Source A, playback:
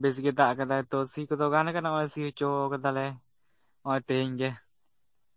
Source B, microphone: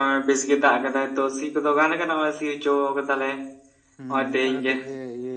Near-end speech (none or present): present